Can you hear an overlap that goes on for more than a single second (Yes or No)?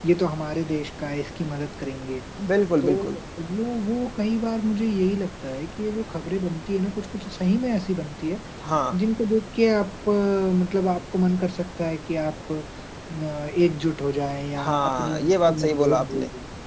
Yes